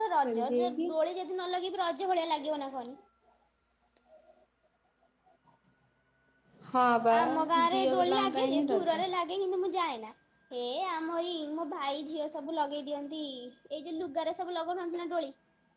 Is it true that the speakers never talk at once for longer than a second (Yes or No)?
No